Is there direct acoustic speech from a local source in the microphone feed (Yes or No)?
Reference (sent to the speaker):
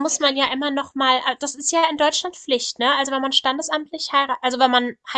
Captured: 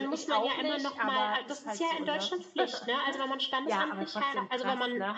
Yes